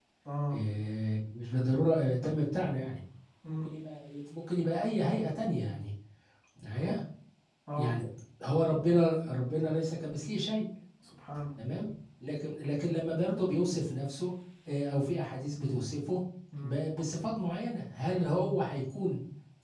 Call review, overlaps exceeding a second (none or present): none